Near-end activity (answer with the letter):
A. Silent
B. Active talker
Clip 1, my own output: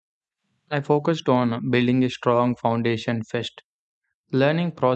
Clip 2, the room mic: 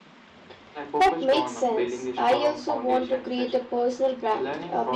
B